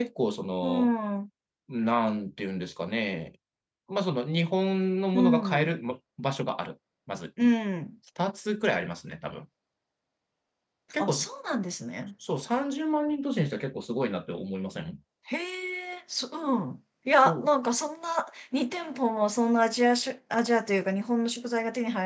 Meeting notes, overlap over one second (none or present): none